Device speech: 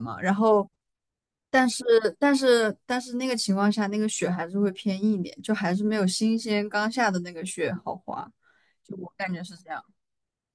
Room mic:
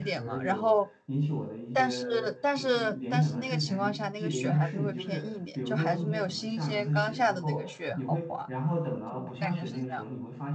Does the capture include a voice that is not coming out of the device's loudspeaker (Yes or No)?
Yes